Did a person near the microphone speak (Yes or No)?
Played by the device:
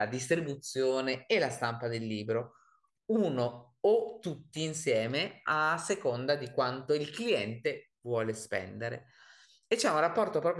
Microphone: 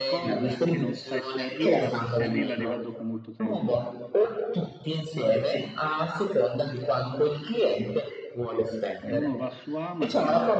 Yes